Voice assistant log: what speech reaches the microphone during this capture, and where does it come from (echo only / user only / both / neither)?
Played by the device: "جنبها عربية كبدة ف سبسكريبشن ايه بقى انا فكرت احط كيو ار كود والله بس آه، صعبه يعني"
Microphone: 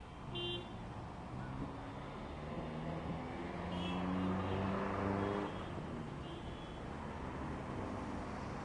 neither